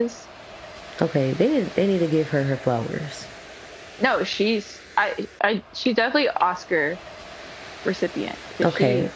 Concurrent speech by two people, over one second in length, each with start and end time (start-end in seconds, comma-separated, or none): none